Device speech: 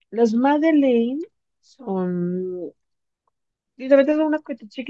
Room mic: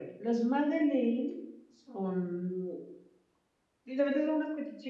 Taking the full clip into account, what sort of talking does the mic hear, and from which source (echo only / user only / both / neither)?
echo only